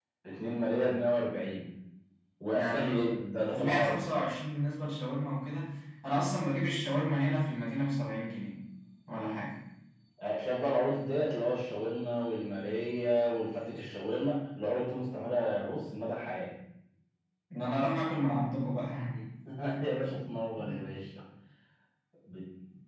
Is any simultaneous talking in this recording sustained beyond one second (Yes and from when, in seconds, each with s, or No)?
No